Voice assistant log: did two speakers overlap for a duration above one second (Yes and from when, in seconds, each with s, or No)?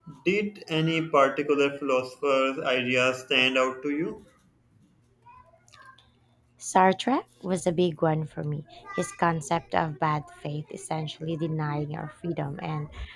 No